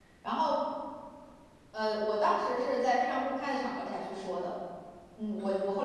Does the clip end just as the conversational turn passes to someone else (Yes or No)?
No